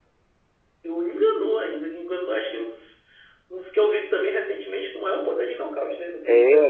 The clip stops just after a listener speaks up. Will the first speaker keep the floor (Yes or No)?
No